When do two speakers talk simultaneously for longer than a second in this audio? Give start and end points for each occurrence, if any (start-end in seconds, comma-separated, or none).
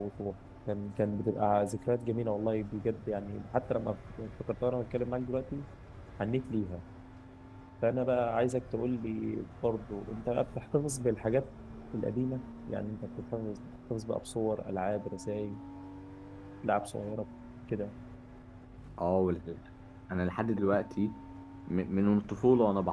none